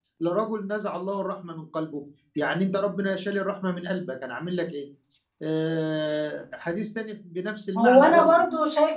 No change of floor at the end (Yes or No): No